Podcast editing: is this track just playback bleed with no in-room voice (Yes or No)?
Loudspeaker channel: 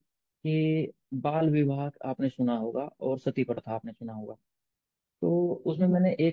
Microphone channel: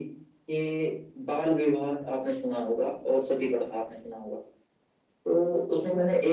Yes